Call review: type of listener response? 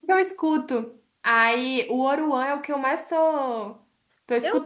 taking over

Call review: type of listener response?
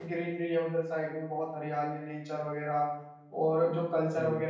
listening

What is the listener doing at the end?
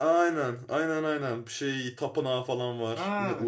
taking over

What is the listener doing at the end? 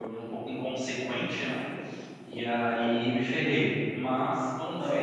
taking over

